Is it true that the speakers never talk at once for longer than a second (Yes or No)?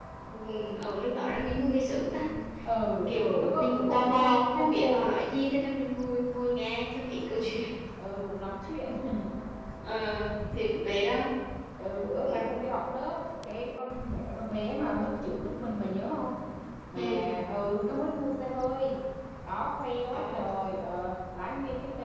No